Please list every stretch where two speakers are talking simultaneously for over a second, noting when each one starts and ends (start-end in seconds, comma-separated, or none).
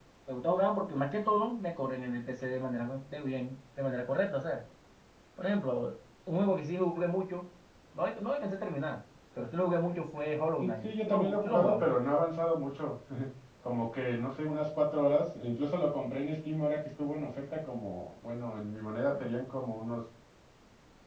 10.6-11.8